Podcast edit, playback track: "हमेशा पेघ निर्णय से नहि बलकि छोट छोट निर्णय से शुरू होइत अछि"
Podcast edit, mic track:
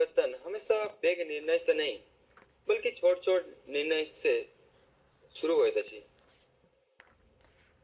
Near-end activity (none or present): none